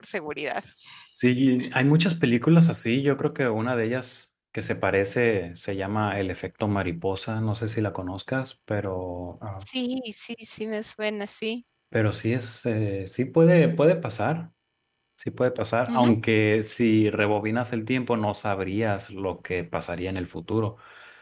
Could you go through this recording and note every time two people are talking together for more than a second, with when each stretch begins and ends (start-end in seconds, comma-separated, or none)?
none